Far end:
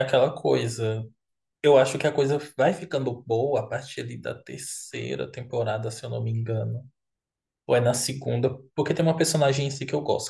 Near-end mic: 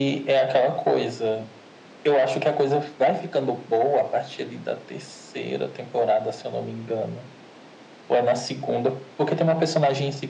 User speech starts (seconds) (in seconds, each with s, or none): none